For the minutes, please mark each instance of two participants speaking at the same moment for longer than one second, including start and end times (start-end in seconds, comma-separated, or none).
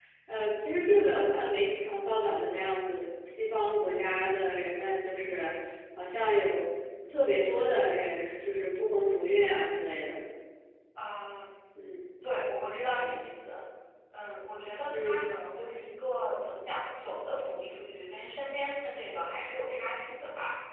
none